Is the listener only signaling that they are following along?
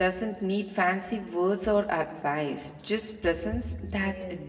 No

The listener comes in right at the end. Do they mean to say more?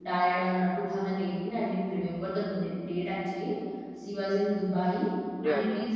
No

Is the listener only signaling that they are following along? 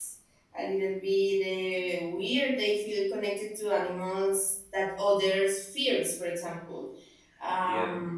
Yes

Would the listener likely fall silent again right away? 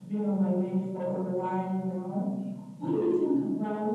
Yes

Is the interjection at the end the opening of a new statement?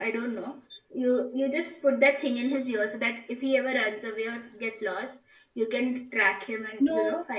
No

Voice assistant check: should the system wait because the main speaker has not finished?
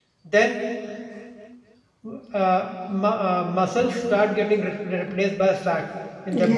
No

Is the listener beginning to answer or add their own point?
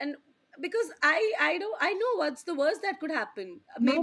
Yes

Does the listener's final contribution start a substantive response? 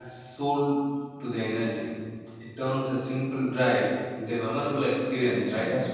Yes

